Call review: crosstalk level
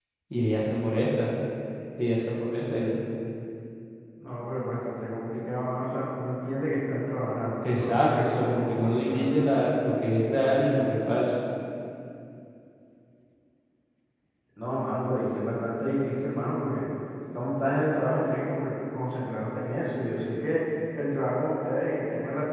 present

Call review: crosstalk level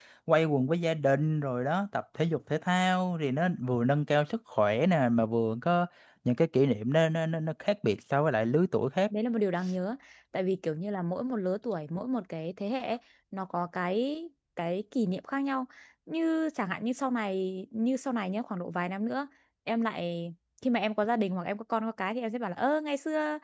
none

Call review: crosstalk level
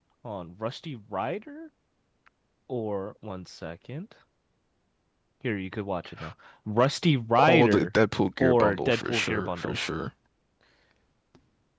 present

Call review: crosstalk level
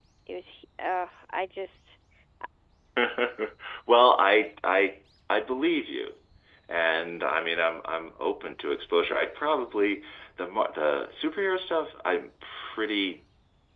none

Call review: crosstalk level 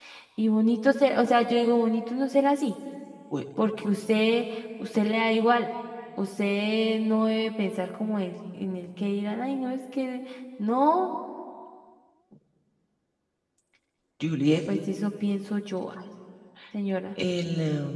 none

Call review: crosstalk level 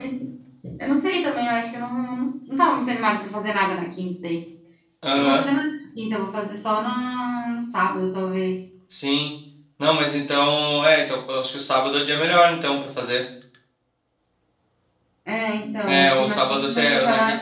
present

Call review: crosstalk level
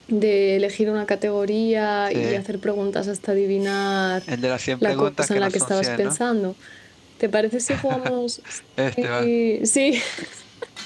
present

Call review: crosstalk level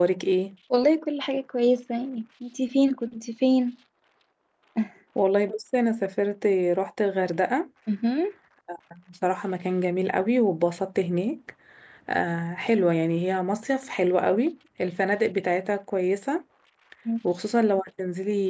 none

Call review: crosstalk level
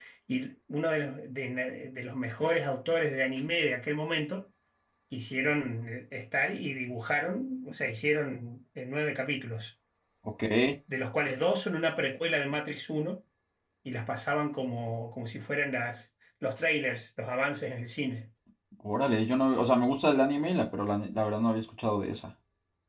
none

